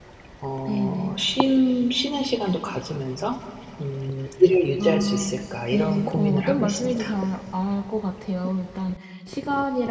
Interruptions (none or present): present